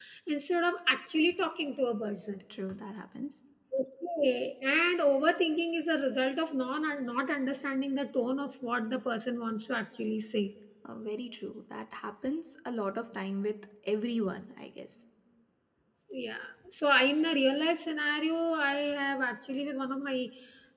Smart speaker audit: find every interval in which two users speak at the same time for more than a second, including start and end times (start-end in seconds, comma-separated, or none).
none